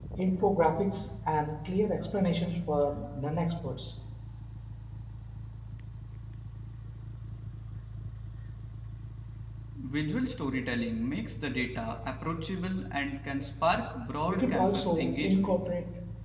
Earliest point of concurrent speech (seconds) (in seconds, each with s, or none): 14.3 s